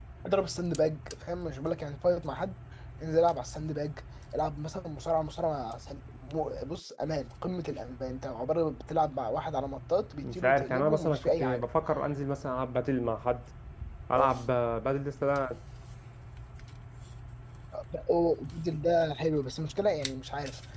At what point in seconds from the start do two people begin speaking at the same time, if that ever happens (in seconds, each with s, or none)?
10.2 s